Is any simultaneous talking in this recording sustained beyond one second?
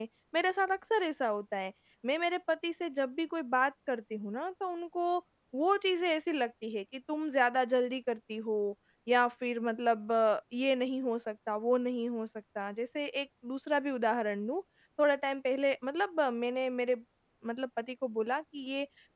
No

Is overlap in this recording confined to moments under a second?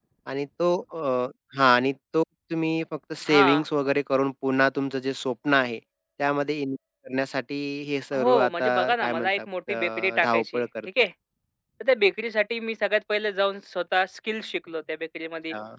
No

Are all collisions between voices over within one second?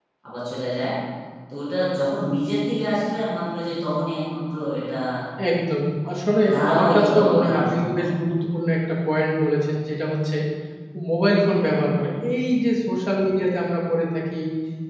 No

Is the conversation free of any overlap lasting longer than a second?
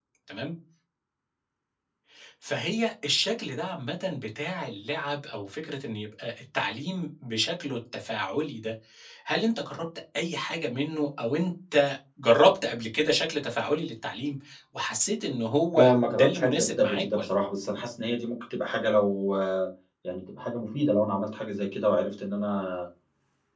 No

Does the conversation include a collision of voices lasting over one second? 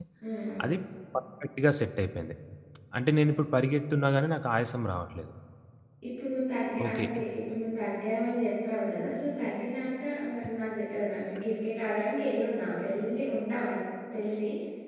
No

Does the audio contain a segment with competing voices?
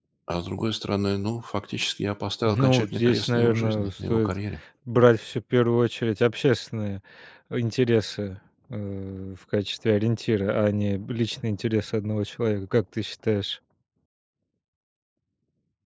Yes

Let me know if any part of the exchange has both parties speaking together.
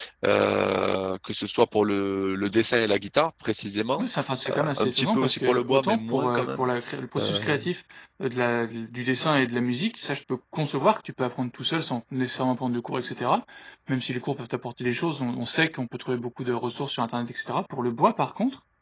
Yes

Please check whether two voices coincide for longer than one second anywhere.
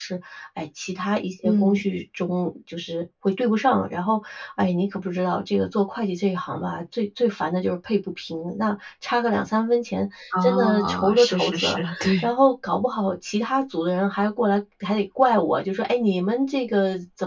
Yes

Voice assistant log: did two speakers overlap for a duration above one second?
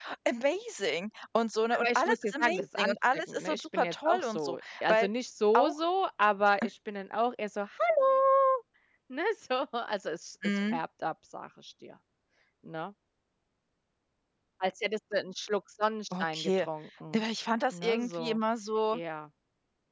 Yes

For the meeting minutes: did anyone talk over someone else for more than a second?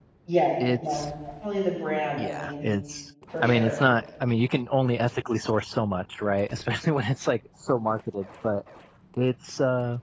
No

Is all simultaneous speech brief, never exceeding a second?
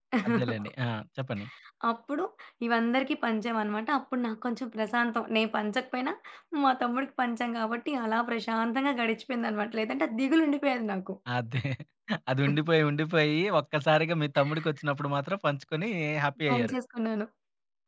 Yes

